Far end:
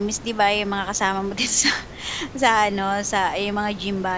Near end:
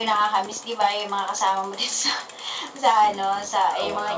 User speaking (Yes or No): Yes